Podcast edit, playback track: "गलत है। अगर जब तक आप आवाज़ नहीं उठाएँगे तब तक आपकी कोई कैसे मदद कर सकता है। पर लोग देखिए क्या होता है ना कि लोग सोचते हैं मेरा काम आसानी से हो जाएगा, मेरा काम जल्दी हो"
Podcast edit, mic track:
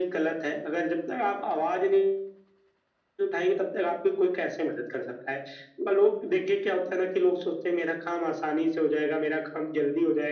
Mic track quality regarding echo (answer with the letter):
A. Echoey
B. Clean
A